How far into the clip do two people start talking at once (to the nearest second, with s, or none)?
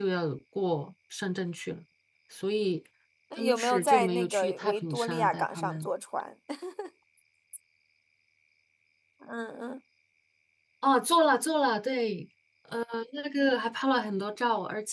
3 s